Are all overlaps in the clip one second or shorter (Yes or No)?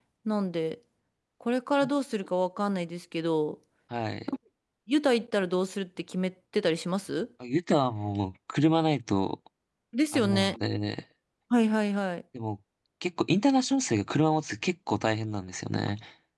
Yes